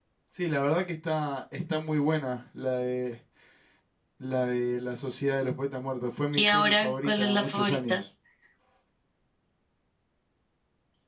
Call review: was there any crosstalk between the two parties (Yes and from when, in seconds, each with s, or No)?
Yes, from 6.3 s